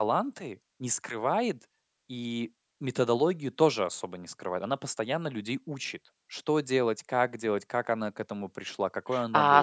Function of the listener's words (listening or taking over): taking over